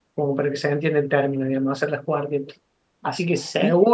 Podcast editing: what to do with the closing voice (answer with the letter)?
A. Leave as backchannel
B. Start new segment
A